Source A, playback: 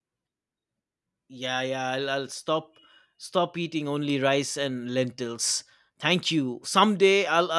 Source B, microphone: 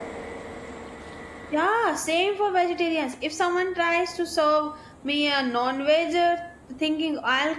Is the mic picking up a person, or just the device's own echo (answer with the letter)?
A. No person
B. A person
B